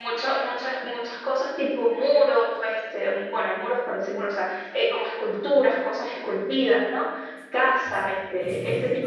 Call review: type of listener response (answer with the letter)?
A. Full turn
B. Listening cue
B